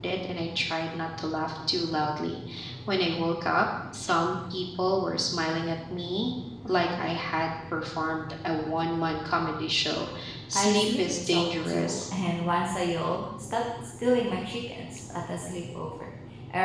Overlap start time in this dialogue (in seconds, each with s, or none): 10.6 s